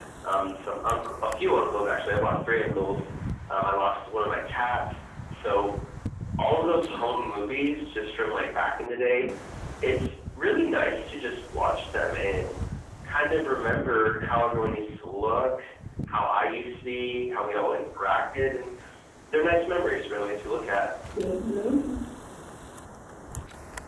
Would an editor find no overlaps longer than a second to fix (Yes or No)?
Yes